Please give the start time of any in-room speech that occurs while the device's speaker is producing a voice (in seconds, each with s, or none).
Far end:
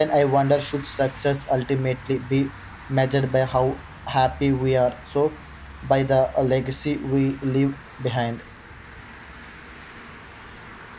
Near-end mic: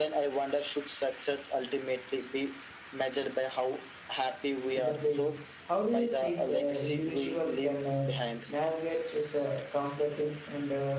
4.7 s